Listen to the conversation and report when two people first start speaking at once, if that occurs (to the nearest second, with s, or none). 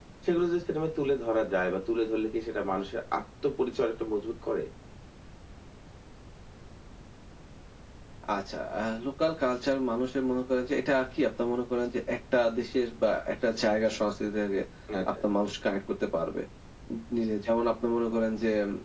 none